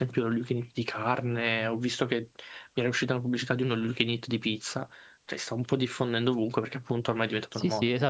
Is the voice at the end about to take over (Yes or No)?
Yes